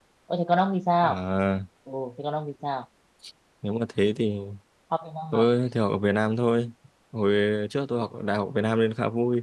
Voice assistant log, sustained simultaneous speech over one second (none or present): none